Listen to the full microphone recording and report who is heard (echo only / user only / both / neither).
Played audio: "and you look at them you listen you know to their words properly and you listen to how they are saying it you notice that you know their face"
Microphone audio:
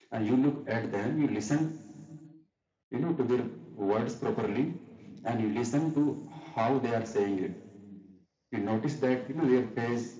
echo only